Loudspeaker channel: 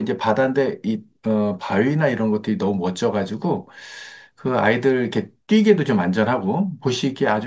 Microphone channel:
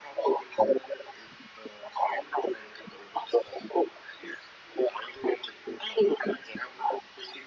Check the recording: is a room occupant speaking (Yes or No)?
No